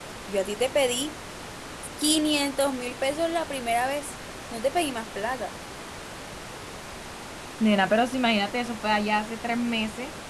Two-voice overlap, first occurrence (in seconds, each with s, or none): none